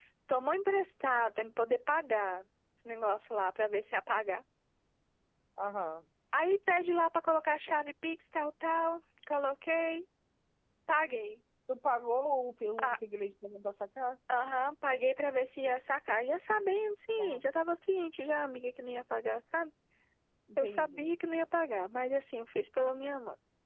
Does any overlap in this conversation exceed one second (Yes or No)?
No